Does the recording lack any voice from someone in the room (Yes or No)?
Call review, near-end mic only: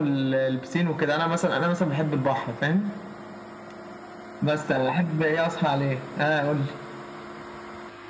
Yes